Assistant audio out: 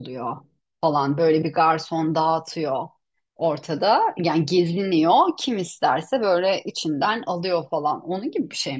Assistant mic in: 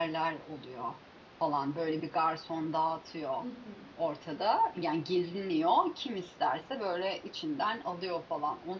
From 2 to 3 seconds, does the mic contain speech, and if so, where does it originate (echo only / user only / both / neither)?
echo only